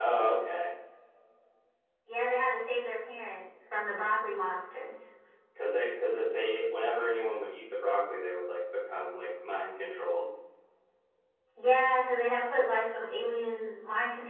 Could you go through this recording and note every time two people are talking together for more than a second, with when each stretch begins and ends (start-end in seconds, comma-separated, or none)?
none